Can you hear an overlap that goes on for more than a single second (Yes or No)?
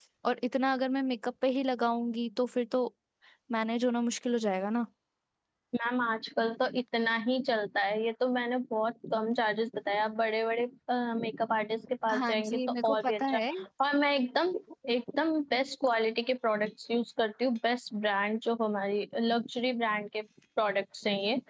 Yes